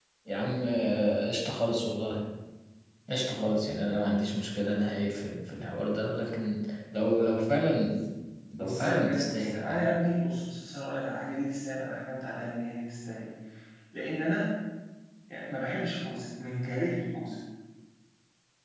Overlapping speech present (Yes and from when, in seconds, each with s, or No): Yes, from 8.6 s